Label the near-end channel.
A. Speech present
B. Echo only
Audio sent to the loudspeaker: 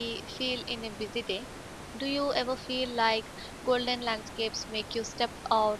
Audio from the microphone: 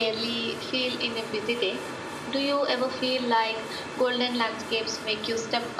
B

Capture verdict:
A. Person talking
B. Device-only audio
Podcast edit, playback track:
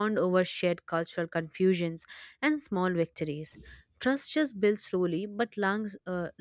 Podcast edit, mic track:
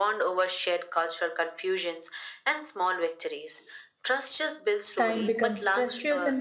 A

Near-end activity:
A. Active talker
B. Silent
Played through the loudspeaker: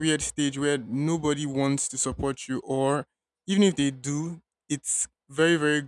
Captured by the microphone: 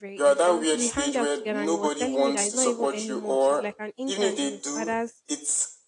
A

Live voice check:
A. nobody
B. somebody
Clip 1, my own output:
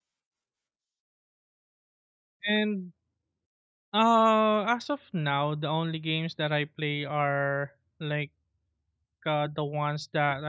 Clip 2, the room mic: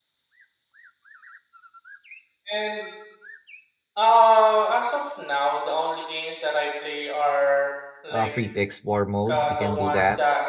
B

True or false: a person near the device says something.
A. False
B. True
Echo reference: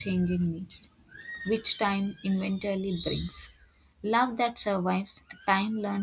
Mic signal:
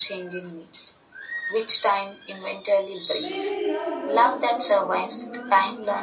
B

